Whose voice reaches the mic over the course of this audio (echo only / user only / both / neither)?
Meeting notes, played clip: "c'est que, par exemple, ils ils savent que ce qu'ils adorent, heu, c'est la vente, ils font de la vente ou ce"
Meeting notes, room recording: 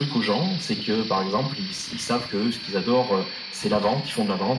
echo only